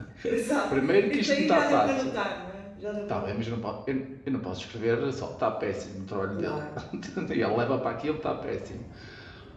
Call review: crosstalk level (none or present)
present